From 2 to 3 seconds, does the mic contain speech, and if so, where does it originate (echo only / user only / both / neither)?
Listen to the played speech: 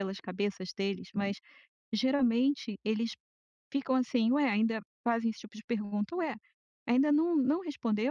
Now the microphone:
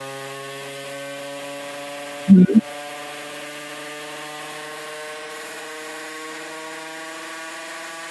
user only